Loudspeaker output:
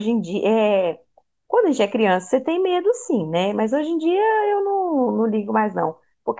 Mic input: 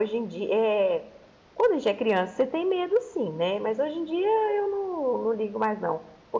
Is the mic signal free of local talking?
Yes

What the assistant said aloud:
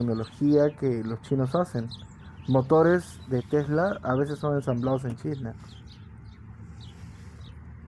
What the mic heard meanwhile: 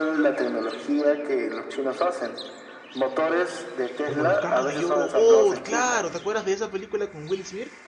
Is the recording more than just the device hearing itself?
Yes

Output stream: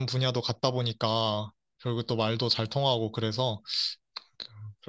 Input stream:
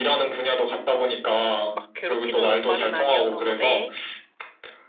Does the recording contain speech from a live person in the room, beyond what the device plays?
Yes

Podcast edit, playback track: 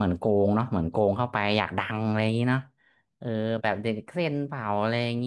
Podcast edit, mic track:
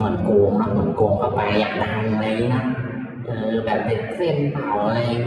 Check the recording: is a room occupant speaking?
No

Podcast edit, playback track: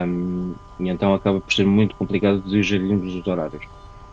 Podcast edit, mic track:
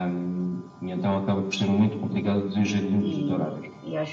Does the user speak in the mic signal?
Yes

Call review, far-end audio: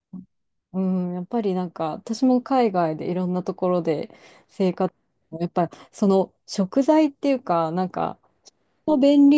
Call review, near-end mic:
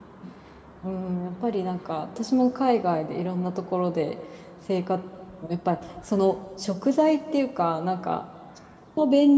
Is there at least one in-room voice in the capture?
No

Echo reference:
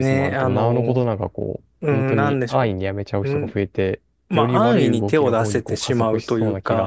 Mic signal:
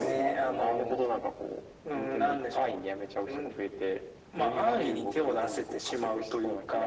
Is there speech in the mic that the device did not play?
No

